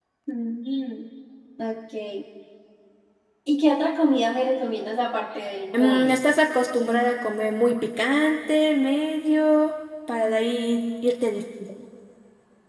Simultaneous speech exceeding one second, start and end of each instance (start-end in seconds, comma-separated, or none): none